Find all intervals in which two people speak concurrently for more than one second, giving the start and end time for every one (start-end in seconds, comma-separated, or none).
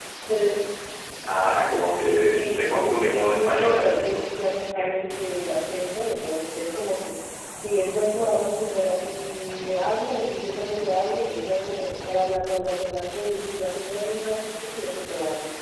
2.3-4.2